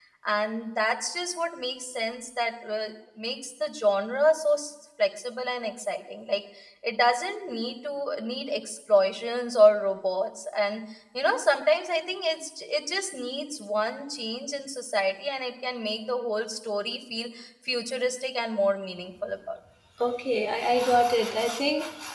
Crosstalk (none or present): none